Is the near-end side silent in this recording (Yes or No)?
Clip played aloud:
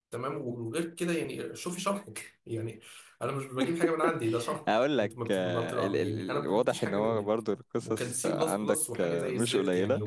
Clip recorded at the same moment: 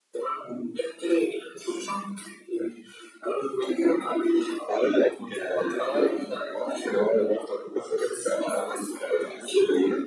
No